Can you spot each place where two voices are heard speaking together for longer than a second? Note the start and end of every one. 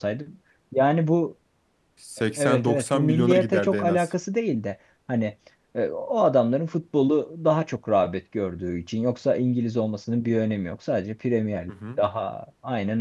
2.4-4.1

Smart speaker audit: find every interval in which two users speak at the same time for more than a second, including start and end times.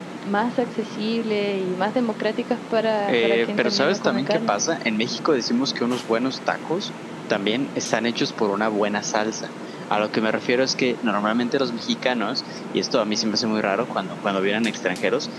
3.1-4.6

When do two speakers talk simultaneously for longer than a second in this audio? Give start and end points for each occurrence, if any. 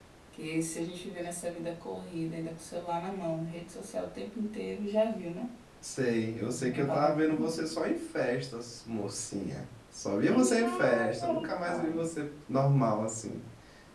6.5-7.8, 10.3-12.1

